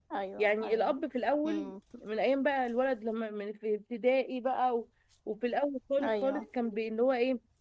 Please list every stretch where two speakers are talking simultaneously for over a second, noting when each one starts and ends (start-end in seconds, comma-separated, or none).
none